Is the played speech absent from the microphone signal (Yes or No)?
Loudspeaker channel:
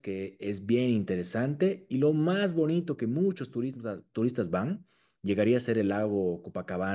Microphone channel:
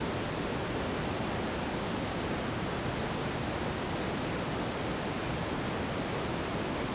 Yes